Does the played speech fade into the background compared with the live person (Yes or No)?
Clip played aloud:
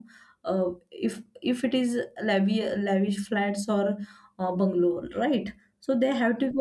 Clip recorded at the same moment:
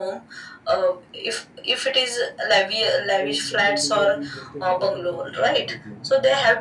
No